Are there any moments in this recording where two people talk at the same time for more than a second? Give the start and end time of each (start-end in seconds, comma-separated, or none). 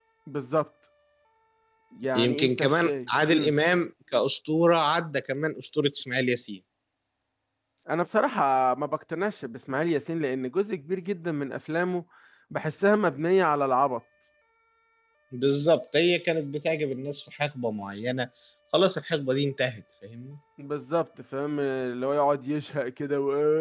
2.1-3.5